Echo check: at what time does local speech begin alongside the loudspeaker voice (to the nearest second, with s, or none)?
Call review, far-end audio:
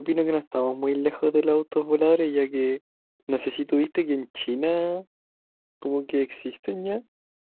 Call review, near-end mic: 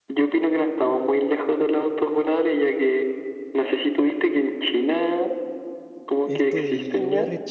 6 s